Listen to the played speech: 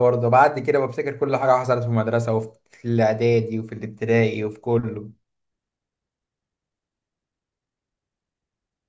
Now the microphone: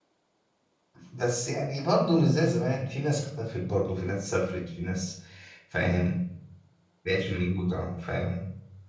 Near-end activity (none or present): present